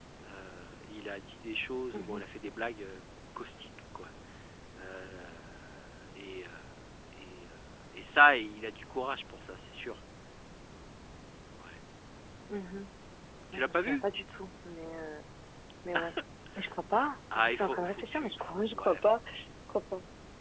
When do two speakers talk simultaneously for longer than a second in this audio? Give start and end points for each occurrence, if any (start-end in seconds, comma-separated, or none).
17.4-19.0